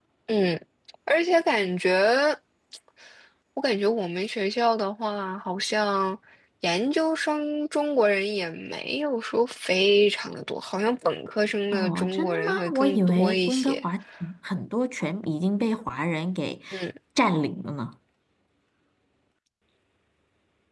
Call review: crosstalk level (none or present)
present